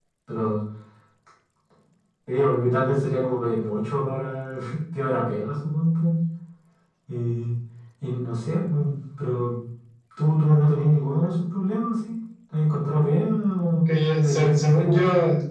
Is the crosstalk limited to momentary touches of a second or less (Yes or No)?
No